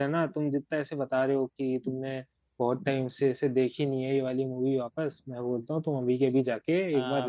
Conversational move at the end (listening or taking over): taking over